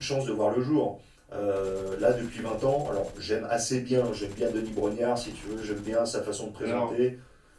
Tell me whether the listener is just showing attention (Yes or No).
Yes